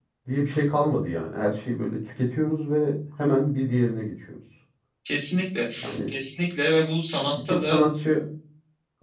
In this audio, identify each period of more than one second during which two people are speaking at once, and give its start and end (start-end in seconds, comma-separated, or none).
none